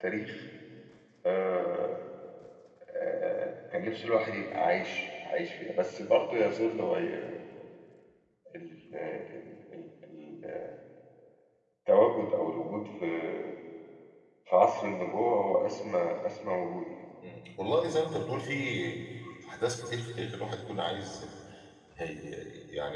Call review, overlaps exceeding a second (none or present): none